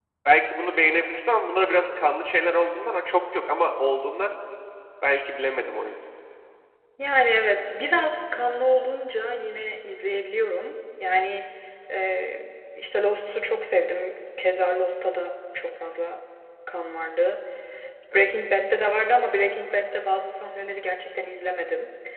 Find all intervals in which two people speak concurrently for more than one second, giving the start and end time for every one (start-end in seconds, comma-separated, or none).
none